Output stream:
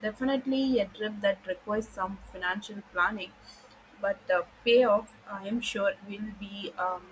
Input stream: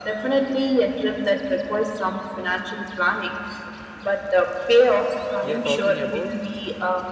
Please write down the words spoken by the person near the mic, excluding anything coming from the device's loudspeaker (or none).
we are talking about.